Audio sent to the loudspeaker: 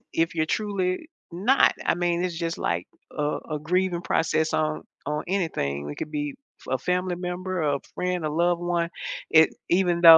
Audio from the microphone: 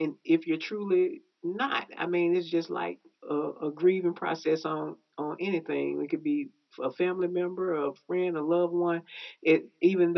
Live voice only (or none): none